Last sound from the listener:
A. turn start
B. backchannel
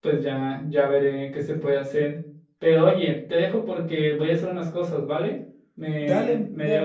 A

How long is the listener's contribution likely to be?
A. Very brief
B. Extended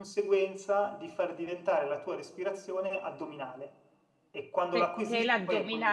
B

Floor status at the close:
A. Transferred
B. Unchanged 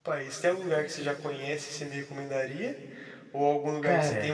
B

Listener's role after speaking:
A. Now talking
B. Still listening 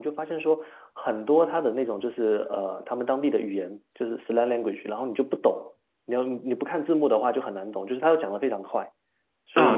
A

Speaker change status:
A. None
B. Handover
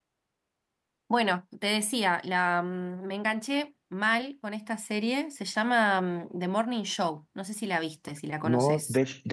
B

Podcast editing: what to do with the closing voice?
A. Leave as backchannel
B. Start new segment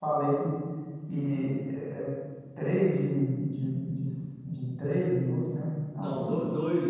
B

